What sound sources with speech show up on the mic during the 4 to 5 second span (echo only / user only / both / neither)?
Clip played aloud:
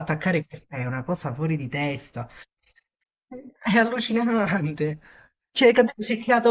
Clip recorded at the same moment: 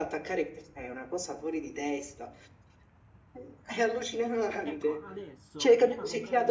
both